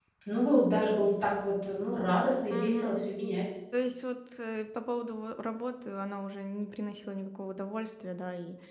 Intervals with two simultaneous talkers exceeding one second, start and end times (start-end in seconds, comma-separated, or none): none